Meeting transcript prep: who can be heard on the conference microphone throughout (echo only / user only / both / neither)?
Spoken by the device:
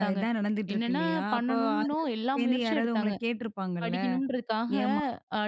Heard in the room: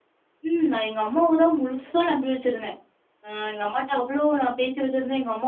user only